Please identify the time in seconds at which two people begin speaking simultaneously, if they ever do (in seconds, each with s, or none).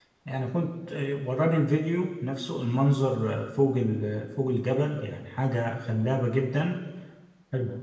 none